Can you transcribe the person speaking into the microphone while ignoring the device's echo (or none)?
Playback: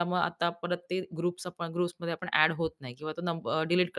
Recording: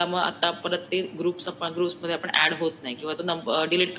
none